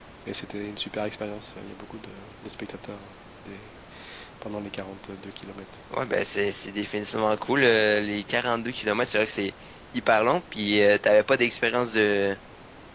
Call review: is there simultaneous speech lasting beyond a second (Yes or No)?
No